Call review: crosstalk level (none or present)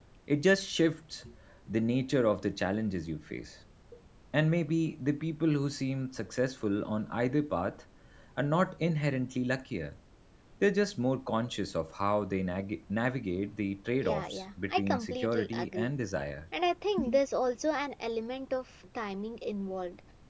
present